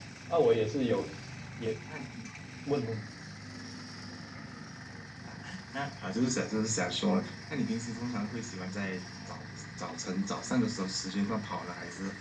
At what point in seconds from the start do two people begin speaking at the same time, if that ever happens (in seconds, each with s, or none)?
none